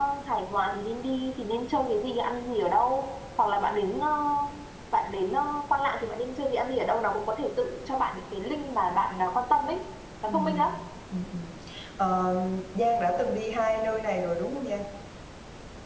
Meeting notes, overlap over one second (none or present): none